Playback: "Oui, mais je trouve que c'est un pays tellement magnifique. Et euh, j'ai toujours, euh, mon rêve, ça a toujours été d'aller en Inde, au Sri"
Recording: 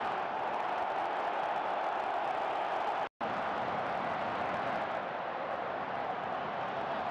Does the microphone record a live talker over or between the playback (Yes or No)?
No